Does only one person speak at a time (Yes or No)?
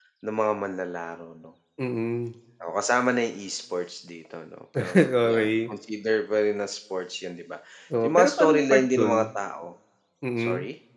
No